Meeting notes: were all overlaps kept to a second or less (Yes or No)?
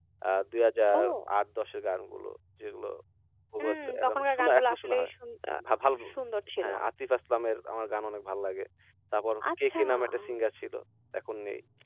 No